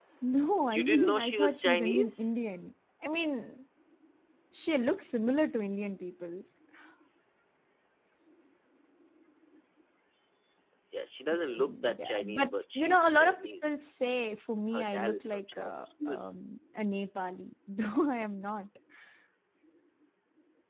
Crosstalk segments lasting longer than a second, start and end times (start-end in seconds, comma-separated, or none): 0.6-2.3, 11.3-13.9, 14.7-16.3